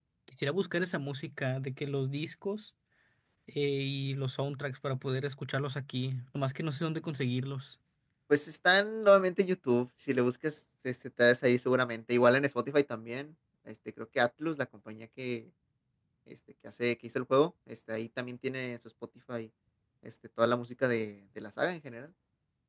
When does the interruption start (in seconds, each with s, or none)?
none